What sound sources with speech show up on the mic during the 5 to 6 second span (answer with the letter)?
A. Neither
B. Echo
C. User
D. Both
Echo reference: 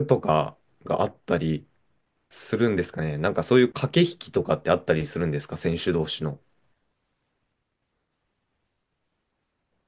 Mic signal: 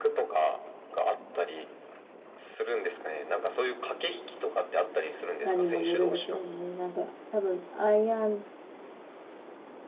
D